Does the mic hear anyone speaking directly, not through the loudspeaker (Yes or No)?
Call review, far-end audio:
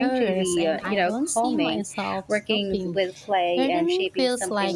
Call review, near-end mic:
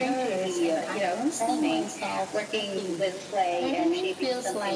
No